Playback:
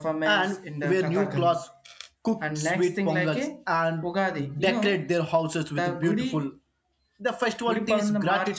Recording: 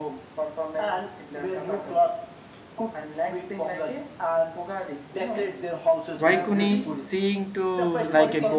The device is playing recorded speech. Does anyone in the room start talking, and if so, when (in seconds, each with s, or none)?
6.2 s